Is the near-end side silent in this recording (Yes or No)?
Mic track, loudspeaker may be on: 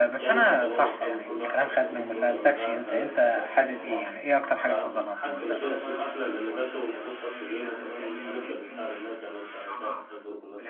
No